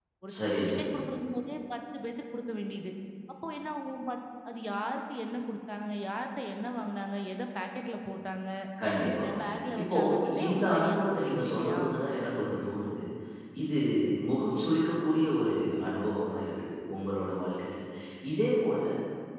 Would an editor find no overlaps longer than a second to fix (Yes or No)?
No